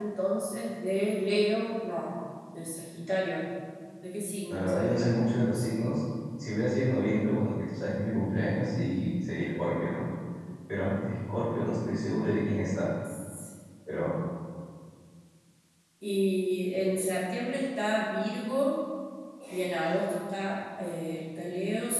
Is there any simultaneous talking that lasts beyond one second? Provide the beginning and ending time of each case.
4.5-5.9

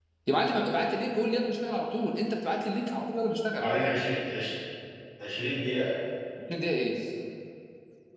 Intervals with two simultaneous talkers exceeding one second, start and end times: none

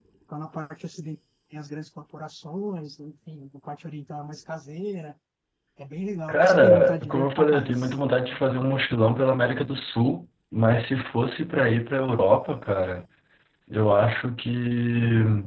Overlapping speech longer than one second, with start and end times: 6.3-7.9

